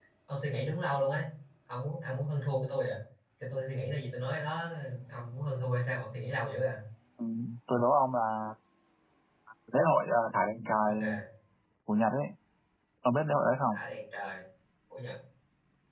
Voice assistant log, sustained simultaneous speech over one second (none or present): none